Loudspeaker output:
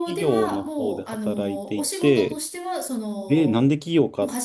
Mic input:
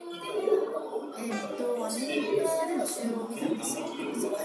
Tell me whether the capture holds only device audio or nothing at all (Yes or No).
No